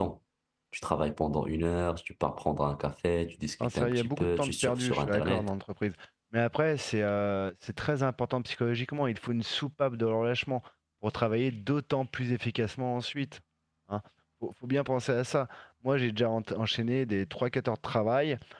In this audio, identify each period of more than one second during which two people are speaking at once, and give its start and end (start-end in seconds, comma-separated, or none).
3.6-5.5